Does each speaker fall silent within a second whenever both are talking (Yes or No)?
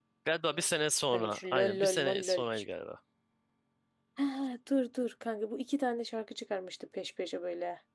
No